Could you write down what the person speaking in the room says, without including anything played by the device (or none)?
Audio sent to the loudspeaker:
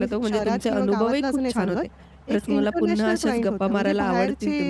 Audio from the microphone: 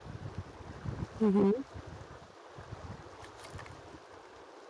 हं, हं.